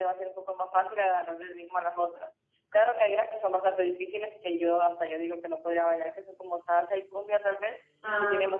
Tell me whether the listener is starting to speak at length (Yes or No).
No